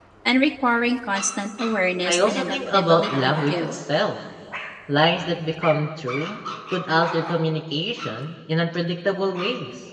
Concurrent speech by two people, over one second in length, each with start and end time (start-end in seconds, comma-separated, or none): 2.1-3.8